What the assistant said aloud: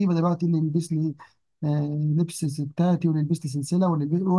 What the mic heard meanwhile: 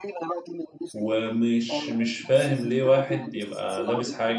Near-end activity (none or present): present